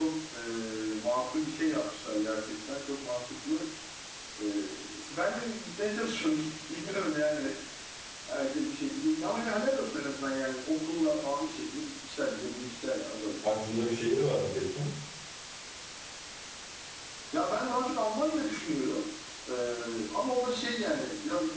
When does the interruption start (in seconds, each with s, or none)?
none